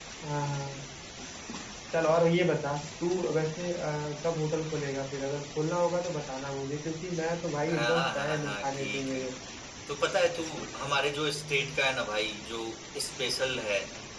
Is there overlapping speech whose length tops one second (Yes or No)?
Yes